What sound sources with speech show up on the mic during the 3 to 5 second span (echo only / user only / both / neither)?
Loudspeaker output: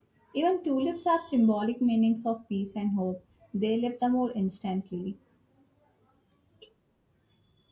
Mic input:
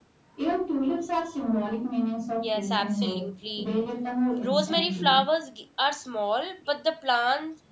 both